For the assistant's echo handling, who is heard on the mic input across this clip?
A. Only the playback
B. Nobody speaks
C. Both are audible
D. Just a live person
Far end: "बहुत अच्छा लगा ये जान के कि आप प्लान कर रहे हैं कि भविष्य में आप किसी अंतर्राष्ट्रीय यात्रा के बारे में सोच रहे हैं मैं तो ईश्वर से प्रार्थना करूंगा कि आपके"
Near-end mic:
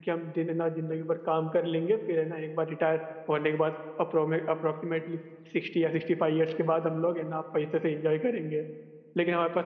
D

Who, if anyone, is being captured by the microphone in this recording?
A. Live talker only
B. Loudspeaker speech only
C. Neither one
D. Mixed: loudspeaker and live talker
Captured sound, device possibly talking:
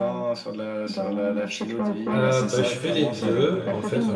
D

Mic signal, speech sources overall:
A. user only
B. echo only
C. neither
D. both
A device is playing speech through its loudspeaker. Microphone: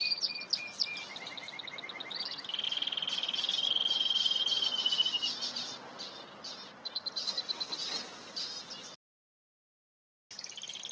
C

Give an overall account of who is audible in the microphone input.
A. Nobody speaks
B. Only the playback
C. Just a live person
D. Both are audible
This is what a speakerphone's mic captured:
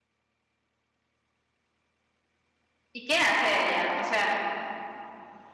C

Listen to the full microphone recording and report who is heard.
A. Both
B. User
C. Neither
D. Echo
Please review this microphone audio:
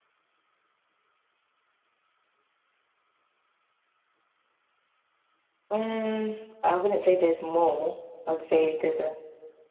B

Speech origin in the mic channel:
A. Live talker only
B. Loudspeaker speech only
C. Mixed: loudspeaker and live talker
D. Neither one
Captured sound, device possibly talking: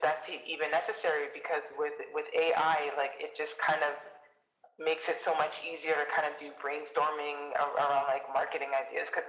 B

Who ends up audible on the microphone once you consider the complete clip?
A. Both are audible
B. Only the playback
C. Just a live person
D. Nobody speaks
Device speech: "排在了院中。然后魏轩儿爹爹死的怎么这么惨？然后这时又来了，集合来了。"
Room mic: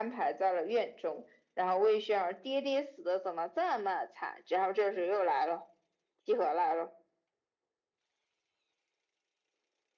B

